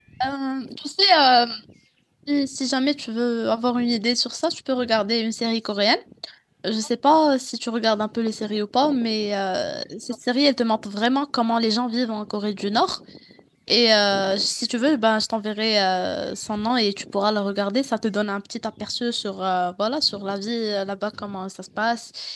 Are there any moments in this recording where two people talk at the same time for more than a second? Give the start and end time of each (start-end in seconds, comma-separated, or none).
none